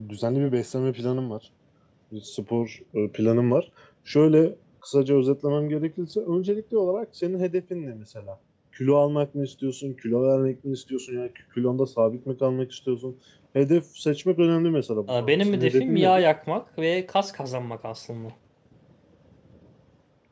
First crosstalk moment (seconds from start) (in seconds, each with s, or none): 15.1 s